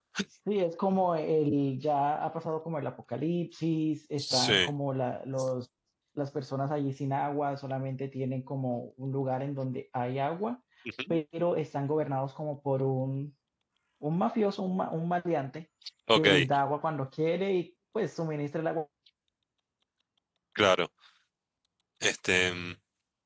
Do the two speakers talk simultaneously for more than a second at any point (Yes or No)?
No